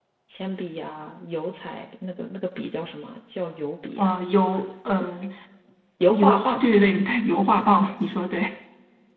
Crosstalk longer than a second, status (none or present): none